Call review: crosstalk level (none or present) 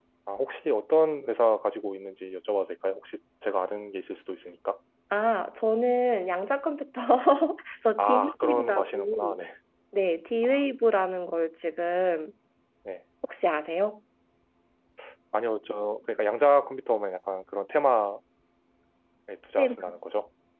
present